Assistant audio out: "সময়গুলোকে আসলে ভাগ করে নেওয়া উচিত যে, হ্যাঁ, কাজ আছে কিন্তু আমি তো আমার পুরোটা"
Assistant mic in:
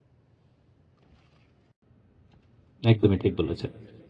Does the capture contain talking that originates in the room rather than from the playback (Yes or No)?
Yes